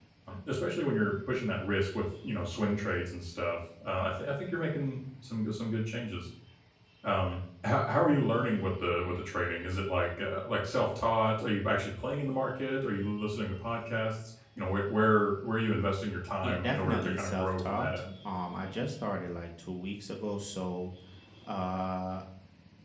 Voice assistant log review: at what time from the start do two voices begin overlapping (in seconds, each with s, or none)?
16.4 s